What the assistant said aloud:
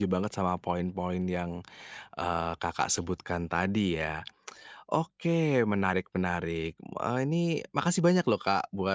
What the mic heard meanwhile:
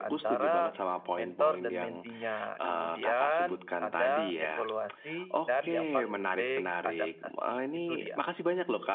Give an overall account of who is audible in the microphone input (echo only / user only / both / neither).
both